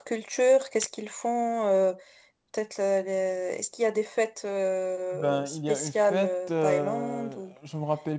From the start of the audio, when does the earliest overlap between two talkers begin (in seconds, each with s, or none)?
5.1 s